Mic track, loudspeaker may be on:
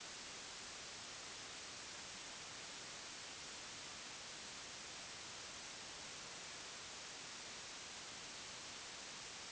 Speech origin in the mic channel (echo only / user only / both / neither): neither